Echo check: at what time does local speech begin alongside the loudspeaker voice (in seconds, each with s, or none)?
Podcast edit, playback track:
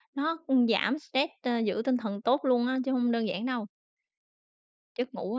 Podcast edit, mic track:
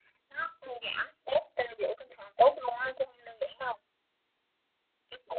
none